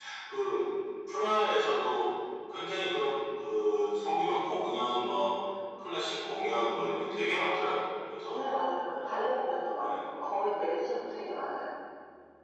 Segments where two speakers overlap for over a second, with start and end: none

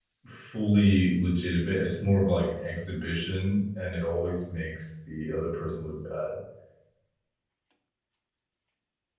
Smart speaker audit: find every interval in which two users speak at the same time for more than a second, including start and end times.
none

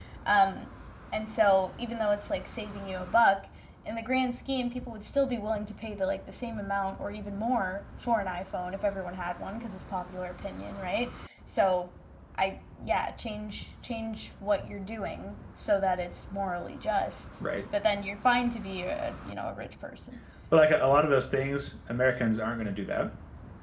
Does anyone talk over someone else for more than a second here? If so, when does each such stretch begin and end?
none

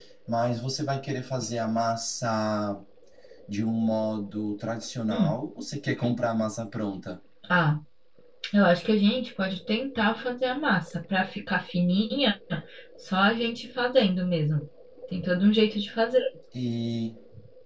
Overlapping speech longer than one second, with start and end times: none

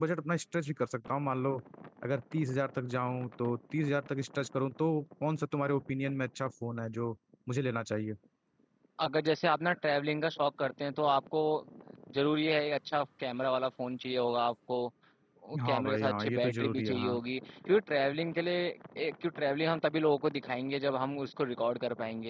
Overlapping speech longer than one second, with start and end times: 15.6-17.2

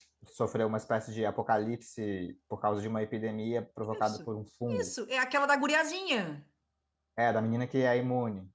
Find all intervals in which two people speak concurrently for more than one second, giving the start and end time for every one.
none

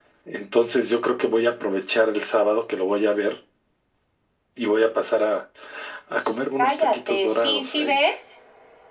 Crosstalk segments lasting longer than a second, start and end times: 6.6-8.0

